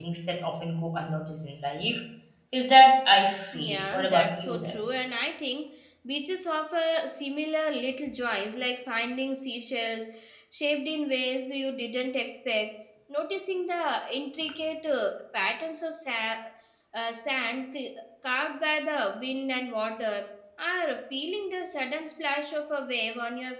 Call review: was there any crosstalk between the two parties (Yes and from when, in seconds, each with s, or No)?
Yes, from 3.5 s